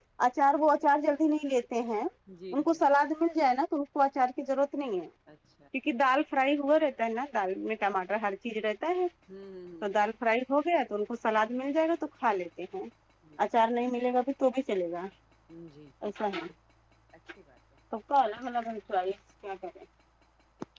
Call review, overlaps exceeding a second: none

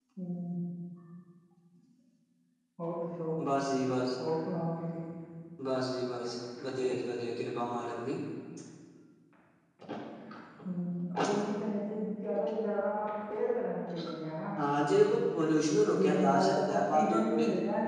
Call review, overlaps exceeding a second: present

